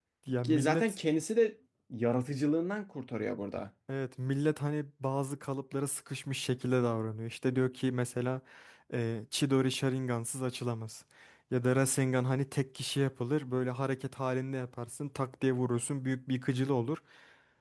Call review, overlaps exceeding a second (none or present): none